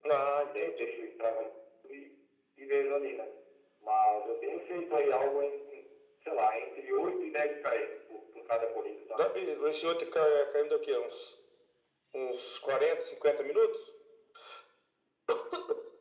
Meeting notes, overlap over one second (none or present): none